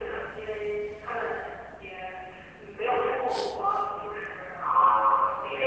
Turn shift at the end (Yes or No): Yes